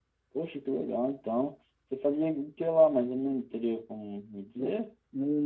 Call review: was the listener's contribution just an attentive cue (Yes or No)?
No